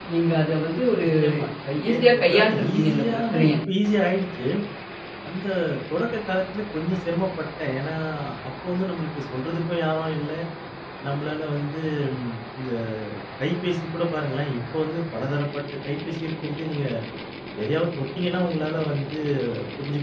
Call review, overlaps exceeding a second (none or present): present